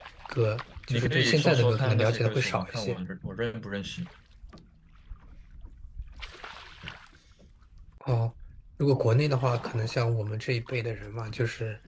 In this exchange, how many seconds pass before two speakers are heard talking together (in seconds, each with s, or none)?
0.9 s